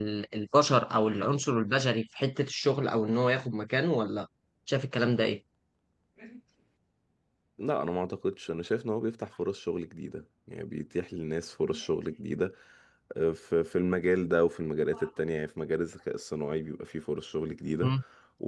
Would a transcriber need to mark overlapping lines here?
No

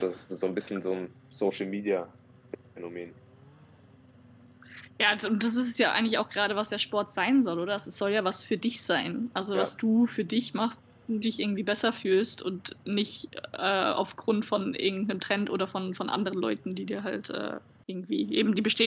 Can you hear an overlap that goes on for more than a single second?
No

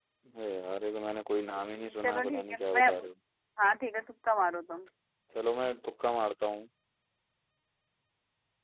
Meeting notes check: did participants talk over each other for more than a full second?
Yes, from 1.5 s

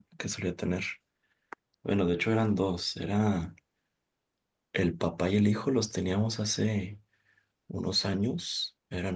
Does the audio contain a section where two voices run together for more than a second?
No

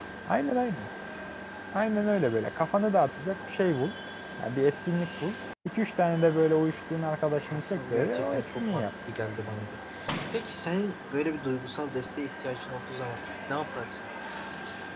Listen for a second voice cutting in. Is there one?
Yes, from 7.5 s

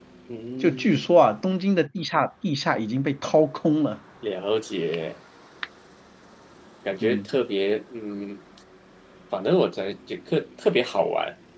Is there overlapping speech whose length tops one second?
No

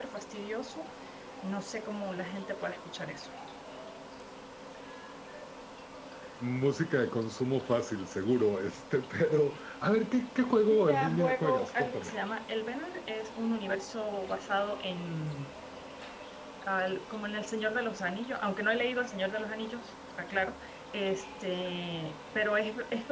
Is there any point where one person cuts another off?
Yes, from 10.7 s

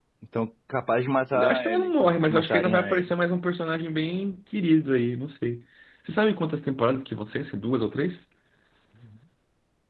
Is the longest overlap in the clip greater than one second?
Yes, from 1.3 s

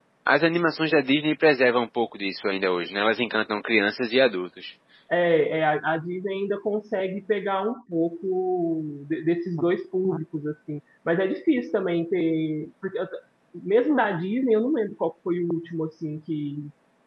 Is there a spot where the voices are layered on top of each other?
No

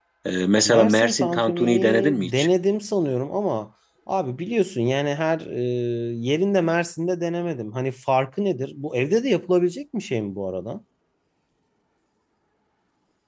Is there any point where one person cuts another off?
Yes, from 0.6 s

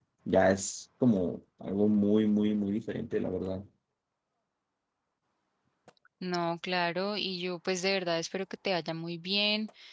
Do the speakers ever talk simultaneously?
No

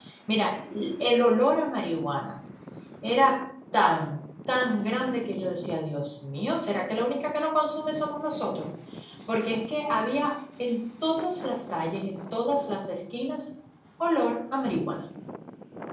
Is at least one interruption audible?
No

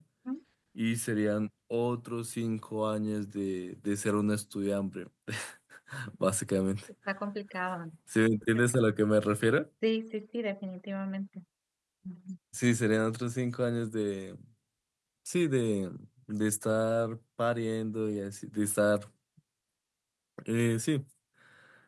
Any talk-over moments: No

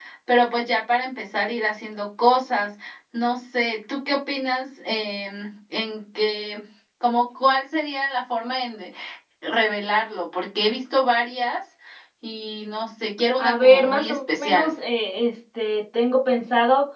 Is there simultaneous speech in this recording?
Yes, from 13.4 s

